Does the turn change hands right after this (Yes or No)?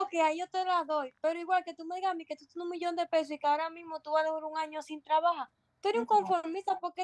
No